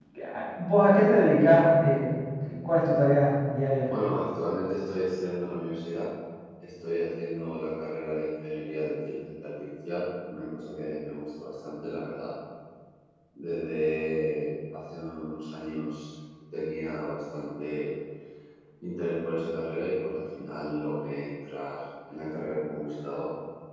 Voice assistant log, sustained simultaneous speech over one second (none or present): none